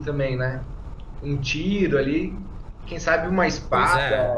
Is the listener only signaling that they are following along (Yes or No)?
Yes